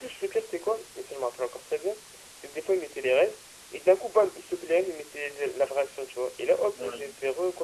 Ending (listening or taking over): listening